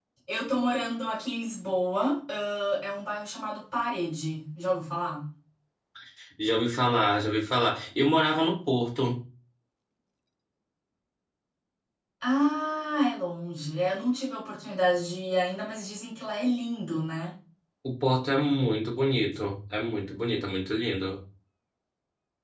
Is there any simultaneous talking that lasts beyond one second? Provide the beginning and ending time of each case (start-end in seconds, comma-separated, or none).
none